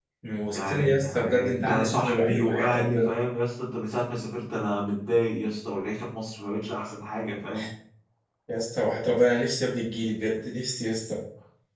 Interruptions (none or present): present